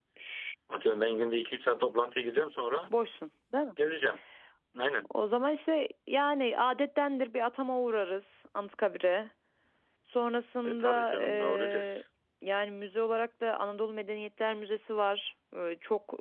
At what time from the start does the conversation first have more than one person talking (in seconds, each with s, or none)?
10.7 s